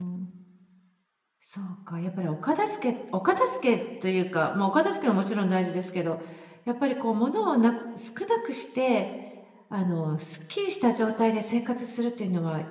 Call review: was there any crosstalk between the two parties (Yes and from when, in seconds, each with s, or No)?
No